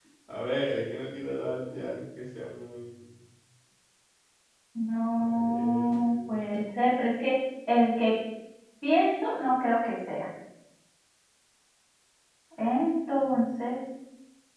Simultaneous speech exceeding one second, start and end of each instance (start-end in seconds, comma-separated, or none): 5.2-6.4